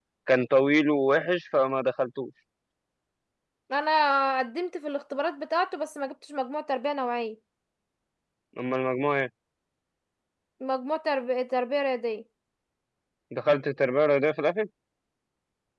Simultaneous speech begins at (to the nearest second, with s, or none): none